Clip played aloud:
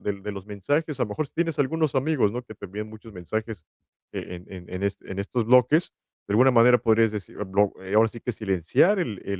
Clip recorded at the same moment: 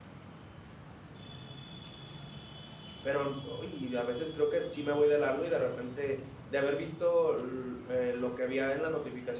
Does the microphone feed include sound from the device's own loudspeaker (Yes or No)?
No